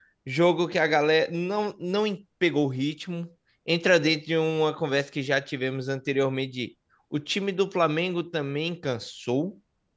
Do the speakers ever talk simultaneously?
No

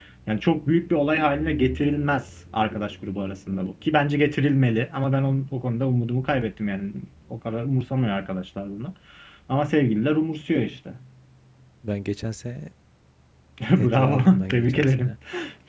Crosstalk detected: Yes, from 13.8 s

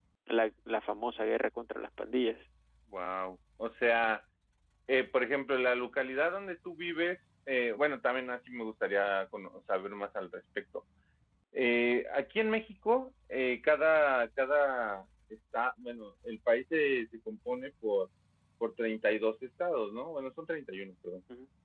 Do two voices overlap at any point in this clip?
No

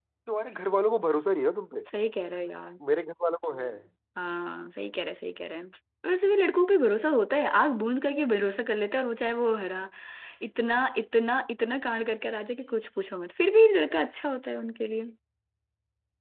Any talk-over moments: No

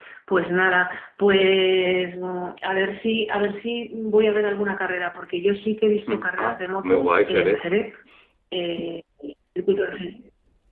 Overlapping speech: Yes, from 6.1 s

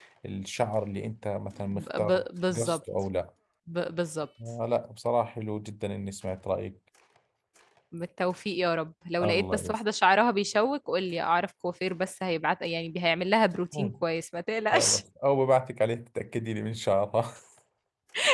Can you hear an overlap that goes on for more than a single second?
Yes, from 1.6 s

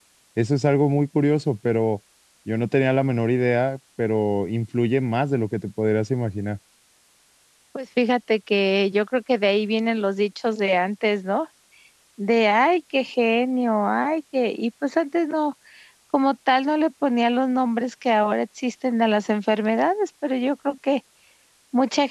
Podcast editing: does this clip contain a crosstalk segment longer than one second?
No

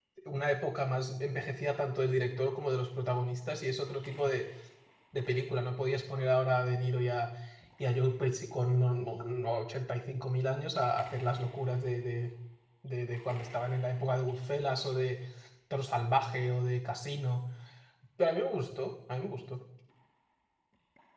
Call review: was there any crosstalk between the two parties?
No

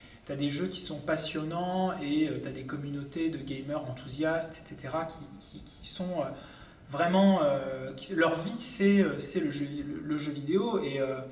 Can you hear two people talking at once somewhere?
No

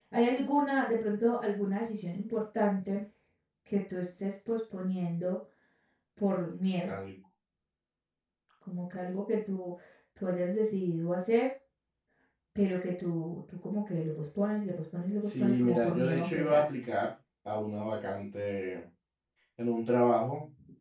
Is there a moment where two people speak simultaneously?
Yes, from 15.2 s

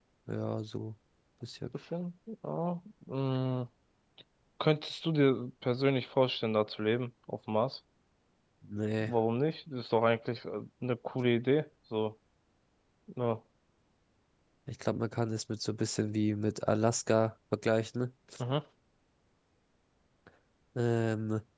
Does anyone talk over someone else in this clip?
No

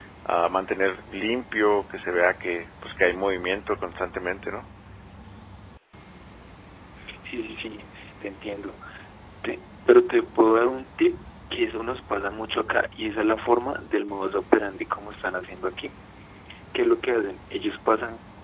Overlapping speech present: No

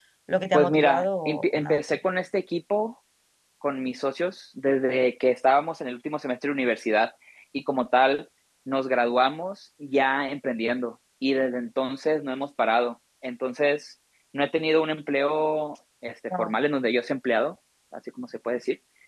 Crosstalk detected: Yes, from 0.5 s

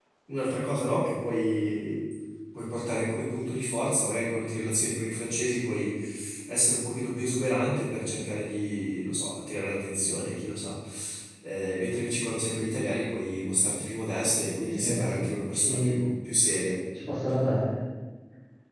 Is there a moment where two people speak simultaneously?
Yes, from 14.6 s

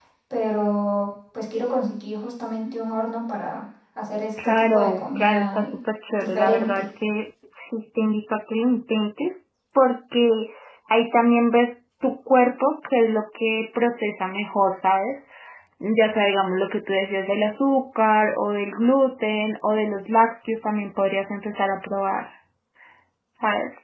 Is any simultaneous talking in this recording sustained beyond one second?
Yes, from 4.4 s

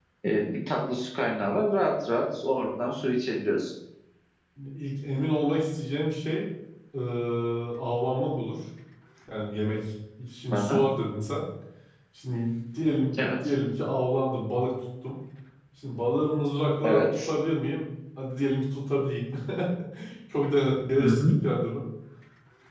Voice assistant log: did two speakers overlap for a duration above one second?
No

